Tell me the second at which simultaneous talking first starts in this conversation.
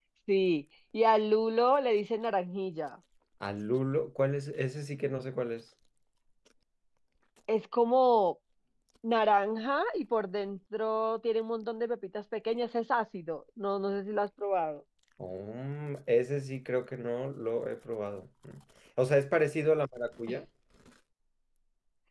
none

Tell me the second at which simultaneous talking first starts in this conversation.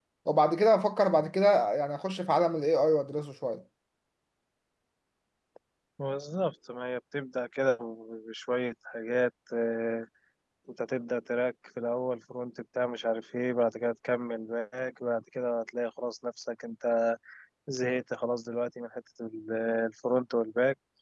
none

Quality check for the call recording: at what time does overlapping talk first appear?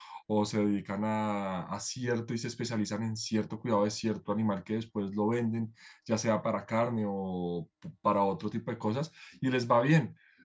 none

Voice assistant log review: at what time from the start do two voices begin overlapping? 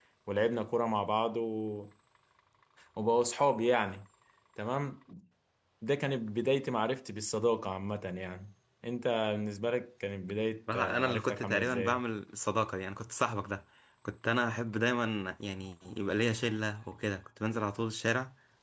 10.7 s

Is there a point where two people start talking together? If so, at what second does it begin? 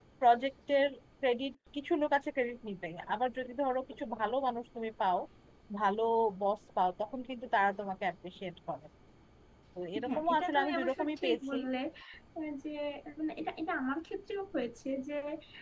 10.1 s

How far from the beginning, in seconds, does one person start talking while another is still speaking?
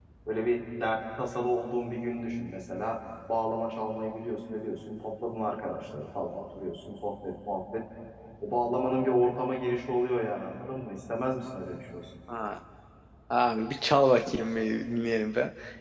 none

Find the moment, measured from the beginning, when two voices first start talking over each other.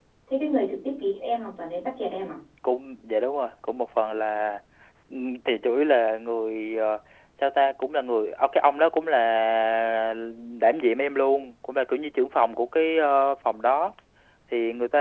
none

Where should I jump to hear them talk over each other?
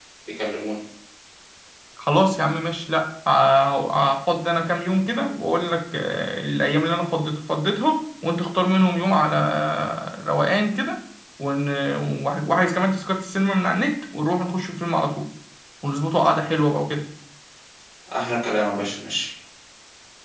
none

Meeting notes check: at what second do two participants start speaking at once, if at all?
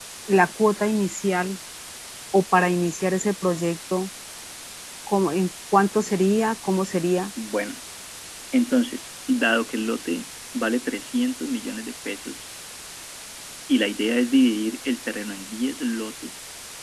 none

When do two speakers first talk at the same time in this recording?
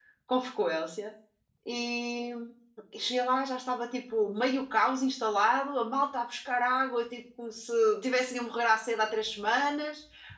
none

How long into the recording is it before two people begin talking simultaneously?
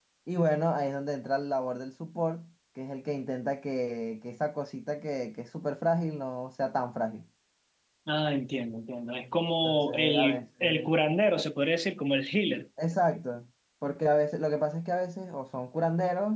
9.6 s

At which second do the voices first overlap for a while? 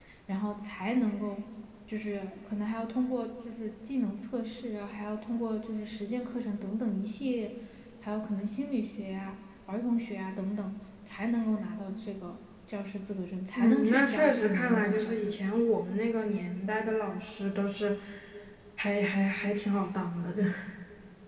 13.6 s

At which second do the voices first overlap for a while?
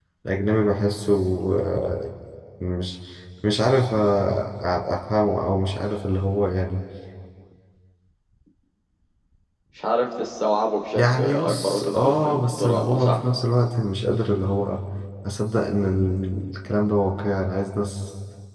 11.0 s

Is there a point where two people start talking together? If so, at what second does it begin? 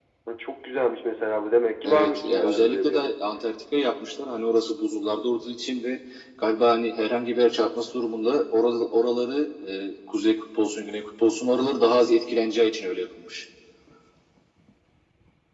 1.8 s

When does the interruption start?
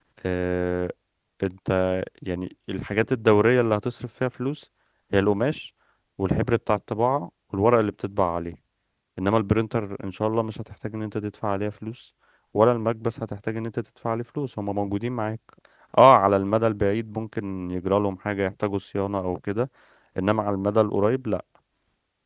none

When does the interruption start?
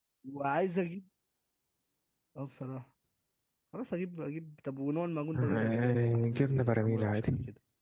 5.3 s

